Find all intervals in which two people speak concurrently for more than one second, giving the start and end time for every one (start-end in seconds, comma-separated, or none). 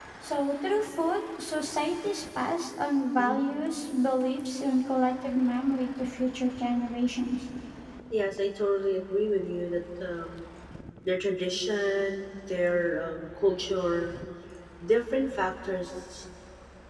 none